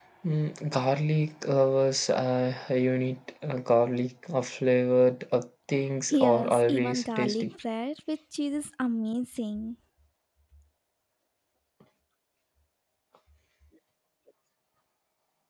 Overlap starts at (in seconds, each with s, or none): 6.1 s